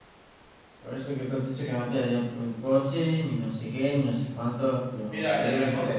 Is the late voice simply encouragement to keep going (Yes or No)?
No